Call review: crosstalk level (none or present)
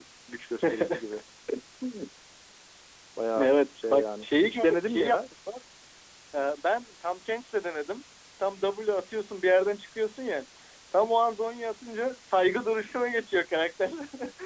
present